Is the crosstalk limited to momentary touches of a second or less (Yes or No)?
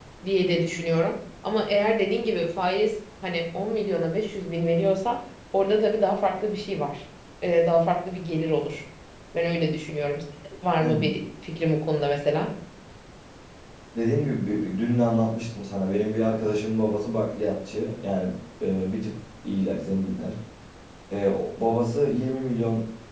Yes